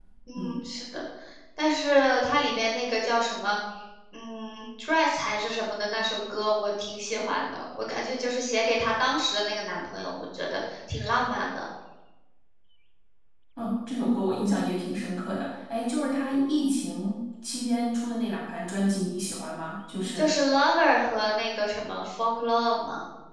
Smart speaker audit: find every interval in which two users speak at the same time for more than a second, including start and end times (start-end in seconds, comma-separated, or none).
none